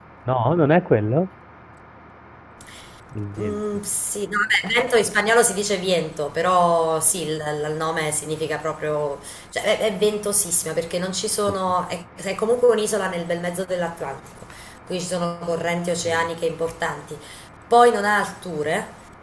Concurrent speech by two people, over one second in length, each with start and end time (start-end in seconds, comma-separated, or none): none